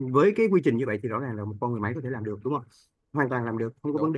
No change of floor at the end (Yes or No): Yes